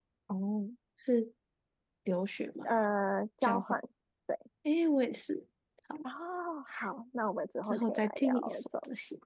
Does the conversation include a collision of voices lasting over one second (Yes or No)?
Yes